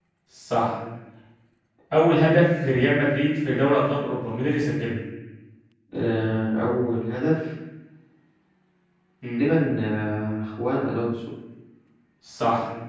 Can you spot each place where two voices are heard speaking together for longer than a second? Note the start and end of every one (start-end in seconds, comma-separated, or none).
none